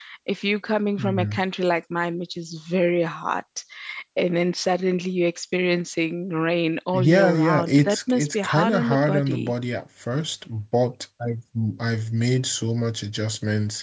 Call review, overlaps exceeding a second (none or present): present